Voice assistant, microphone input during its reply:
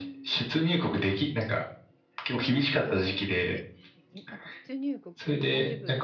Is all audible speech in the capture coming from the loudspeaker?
No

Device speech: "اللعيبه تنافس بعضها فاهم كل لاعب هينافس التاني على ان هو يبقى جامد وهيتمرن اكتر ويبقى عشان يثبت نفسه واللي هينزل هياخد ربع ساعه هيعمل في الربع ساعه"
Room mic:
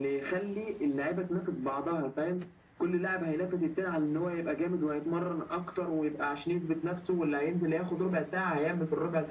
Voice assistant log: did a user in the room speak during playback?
No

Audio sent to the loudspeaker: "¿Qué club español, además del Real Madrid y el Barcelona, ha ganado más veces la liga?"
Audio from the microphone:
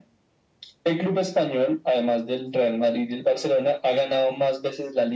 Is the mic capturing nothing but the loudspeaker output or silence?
Yes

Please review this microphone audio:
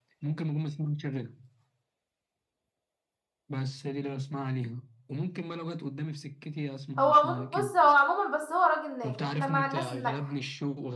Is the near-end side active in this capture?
Yes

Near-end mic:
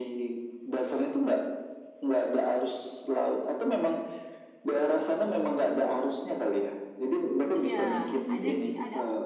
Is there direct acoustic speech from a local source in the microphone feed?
Yes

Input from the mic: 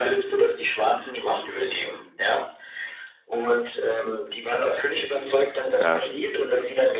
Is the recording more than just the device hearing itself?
Yes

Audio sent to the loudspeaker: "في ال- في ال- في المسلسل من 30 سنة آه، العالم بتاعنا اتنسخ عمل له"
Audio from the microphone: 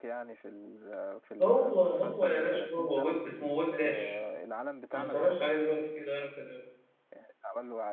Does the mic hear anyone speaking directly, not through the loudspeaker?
Yes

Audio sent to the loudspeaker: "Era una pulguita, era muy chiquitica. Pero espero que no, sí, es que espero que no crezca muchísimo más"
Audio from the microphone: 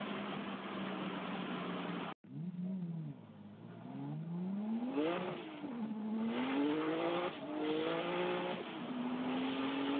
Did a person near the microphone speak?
No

